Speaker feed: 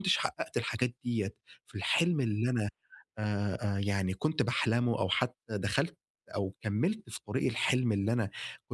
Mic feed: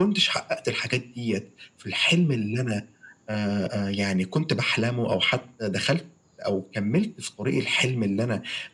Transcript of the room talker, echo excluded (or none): none